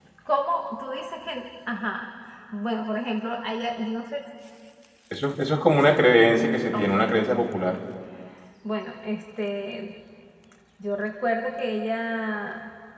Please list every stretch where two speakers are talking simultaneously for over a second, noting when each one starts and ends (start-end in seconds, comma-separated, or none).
none